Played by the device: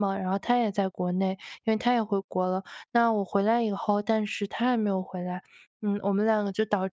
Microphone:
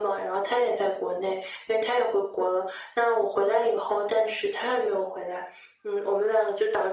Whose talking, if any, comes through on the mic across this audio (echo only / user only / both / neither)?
echo only